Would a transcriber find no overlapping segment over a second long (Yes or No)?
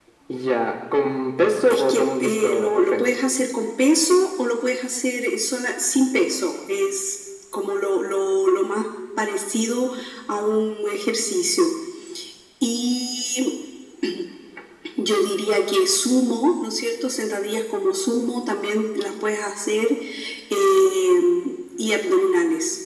No